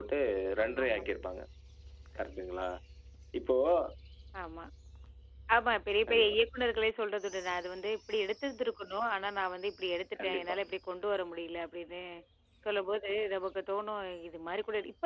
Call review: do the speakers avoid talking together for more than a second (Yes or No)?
Yes